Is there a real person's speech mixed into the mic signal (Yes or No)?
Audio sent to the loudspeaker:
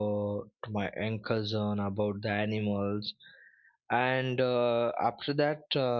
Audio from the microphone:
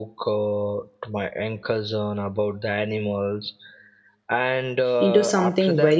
Yes